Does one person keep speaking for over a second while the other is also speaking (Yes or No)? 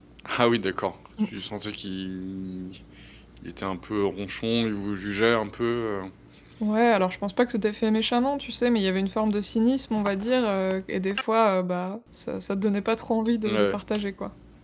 No